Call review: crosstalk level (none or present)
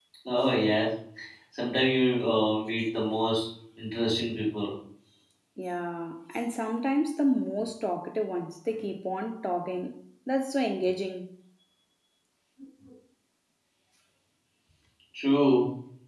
none